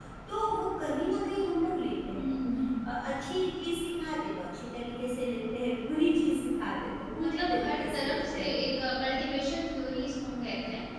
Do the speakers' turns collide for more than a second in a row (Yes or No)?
Yes